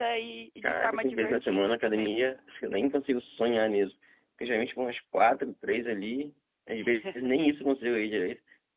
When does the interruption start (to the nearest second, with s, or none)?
1 s